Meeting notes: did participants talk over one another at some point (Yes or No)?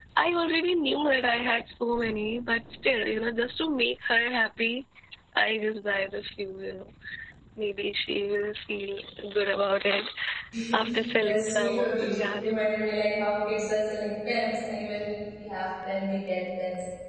Yes